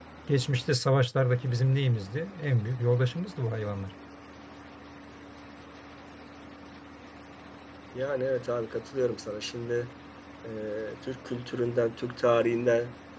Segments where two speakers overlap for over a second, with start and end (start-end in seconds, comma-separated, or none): none